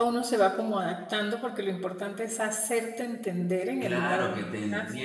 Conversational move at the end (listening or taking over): taking over